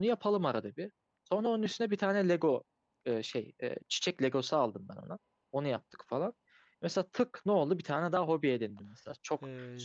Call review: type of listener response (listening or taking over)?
listening